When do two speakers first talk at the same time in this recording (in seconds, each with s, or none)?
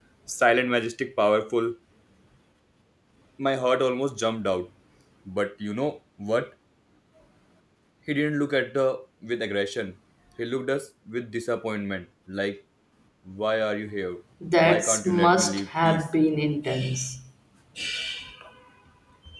14.6 s